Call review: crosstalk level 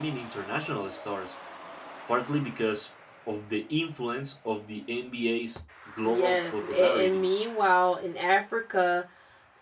present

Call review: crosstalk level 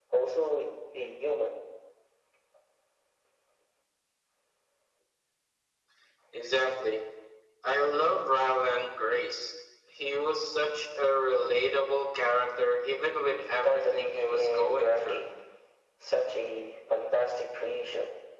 present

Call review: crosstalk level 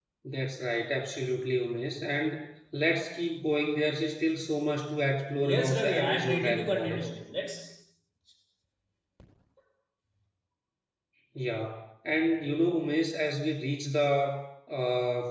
present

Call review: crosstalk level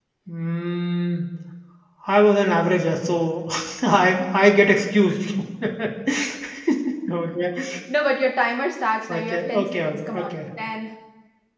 present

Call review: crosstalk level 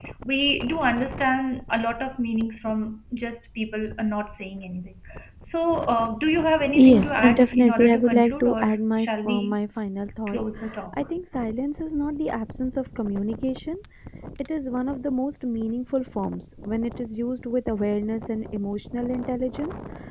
present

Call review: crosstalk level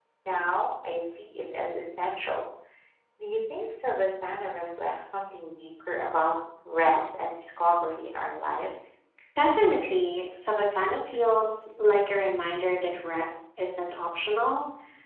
none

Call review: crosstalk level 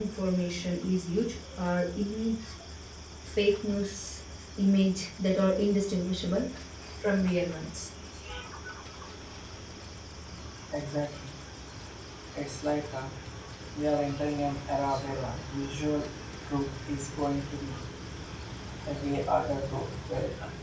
none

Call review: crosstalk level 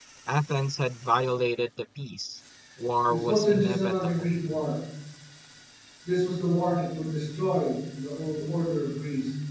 present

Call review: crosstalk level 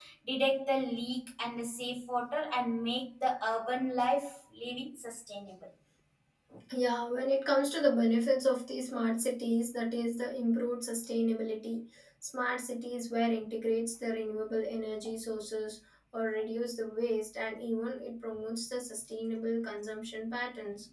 none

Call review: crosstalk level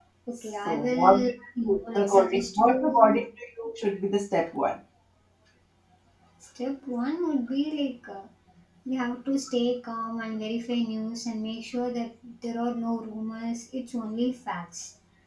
present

